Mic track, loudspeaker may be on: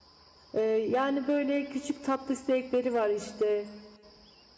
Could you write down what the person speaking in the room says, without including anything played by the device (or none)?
E, yani böyle küçük tatlı zevkleri var işte.